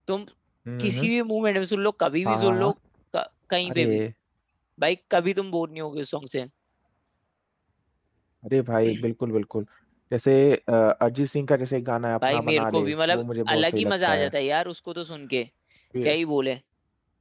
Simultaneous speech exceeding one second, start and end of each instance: 12.3-14.3

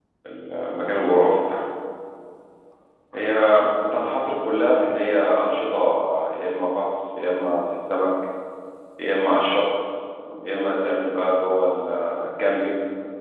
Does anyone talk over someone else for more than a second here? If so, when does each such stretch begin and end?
none

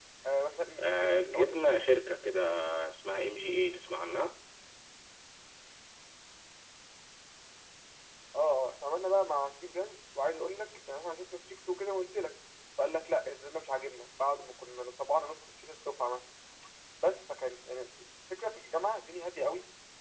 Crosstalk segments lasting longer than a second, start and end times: 0.8-2.0

